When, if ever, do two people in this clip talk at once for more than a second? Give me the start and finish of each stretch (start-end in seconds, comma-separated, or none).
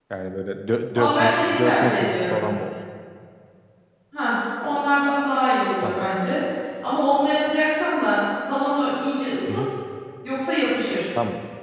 1.0-2.4